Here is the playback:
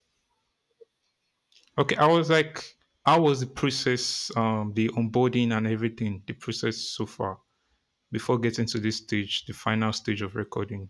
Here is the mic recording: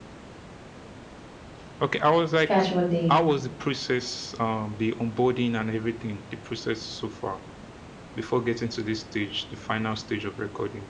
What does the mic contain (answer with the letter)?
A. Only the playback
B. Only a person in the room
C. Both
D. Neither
C